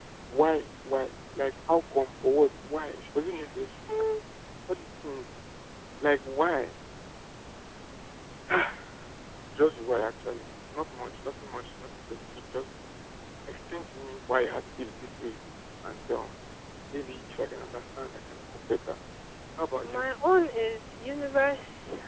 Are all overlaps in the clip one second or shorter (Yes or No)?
Yes